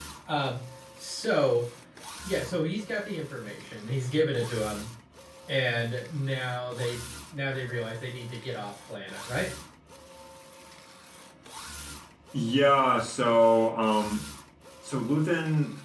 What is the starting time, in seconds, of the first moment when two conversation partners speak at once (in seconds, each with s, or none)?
none